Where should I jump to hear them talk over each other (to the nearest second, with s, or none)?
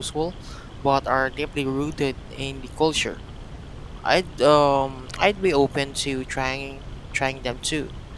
none